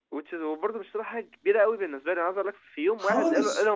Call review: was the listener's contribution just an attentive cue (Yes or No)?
Yes